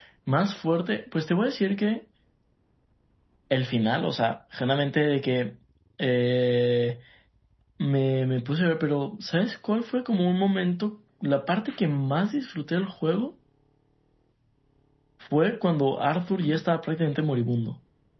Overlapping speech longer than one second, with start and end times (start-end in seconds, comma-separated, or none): none